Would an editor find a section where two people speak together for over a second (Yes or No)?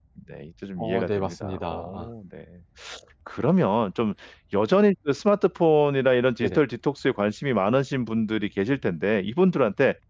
Yes